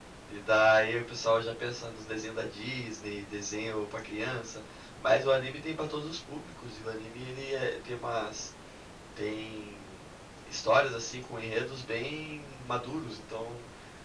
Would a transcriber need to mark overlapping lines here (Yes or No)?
No